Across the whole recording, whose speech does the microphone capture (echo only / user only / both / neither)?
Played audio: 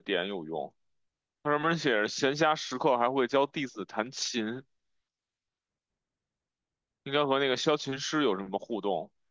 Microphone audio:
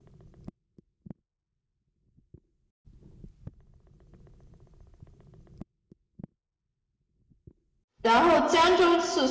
user only